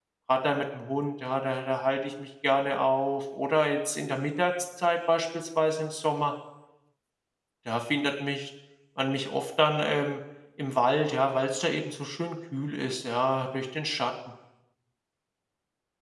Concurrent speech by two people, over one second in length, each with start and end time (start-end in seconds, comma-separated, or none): none